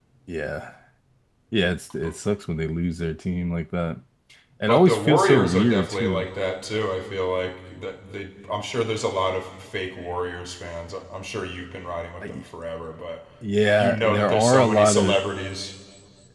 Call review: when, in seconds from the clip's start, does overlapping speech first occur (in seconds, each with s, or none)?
4.7 s